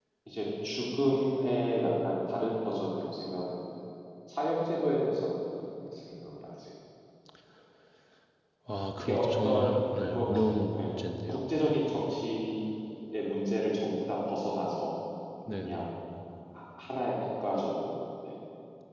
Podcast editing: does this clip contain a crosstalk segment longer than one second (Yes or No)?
Yes